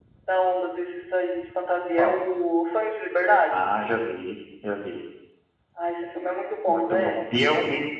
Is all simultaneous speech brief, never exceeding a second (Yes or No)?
Yes